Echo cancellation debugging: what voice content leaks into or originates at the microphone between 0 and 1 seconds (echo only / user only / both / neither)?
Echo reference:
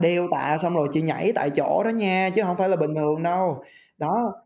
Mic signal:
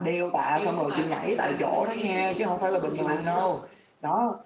both